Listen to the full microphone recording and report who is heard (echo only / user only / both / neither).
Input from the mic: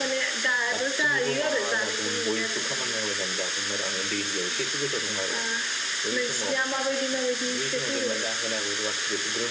both